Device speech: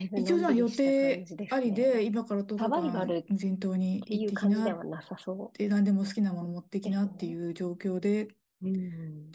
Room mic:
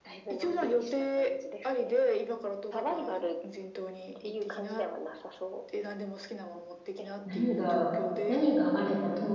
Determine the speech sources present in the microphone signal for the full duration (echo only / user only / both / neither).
both